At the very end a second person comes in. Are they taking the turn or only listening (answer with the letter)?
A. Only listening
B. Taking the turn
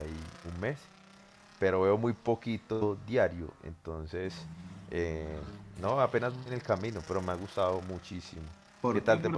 B